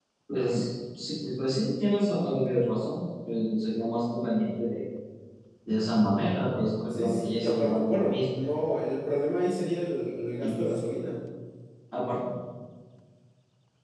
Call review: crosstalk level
present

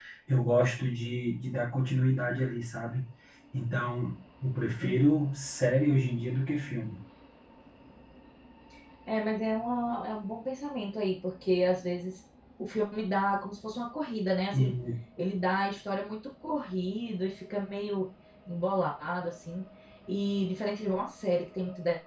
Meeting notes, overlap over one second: none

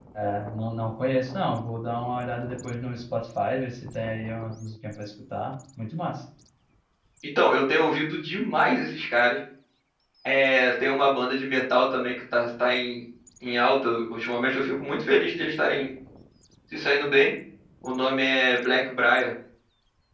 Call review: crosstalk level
none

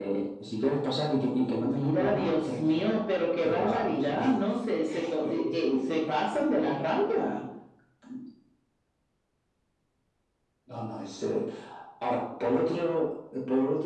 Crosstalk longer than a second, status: present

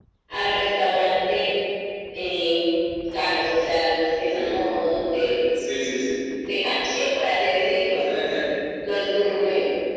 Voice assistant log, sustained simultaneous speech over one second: none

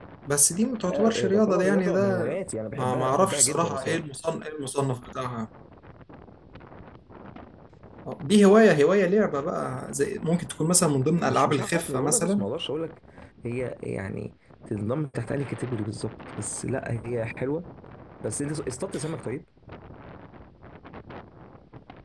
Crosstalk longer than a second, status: present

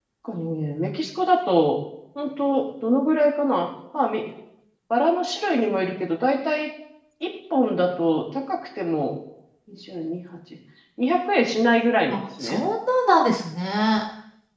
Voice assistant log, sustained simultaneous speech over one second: none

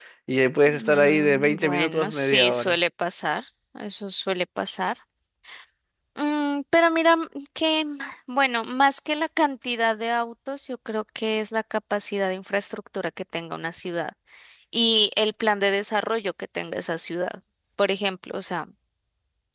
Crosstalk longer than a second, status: present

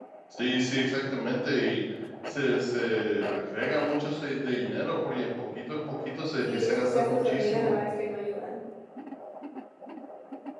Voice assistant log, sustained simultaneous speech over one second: present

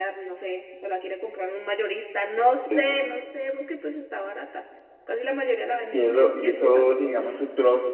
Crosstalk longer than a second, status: present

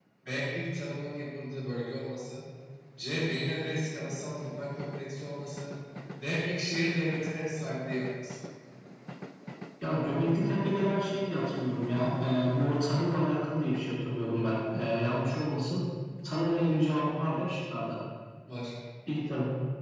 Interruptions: none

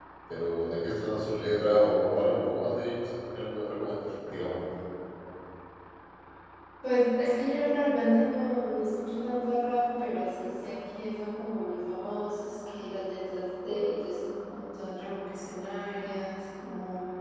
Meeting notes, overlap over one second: none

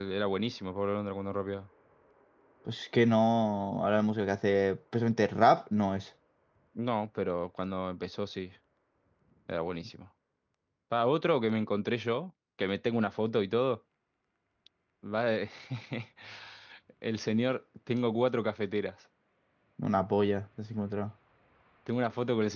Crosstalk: none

